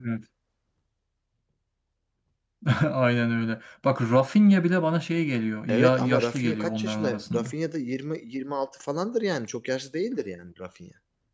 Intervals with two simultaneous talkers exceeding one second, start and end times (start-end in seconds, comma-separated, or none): 5.7-7.5